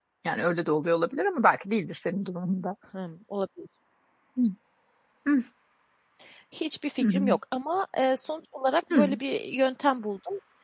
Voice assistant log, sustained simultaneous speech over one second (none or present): none